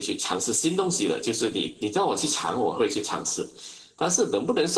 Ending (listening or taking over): listening